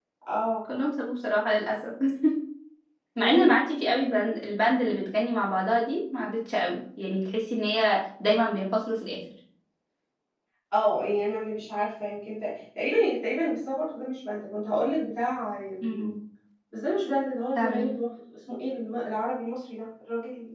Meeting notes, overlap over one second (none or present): none